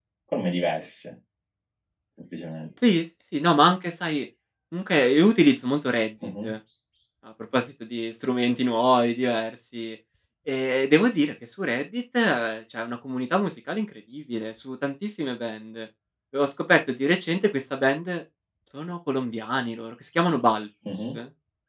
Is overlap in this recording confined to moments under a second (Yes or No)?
Yes